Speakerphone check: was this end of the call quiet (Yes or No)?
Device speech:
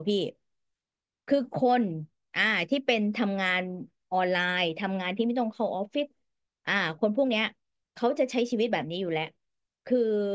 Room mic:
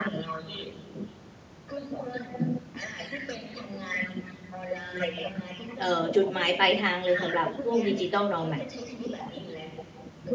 No